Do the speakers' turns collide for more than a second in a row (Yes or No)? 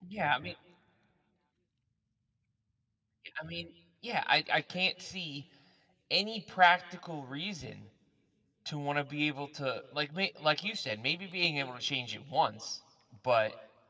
No